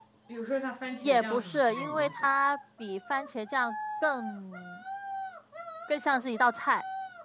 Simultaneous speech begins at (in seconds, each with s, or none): 1.0 s